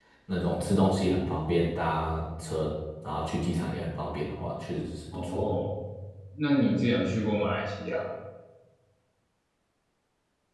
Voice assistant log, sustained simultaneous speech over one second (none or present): none